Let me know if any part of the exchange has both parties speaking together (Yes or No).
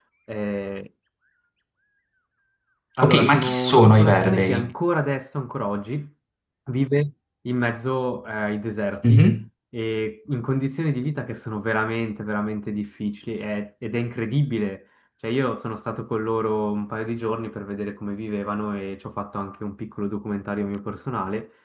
Yes